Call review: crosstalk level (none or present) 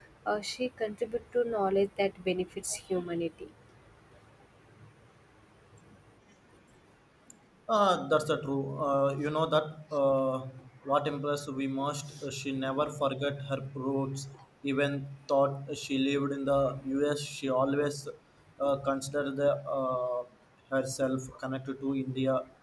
none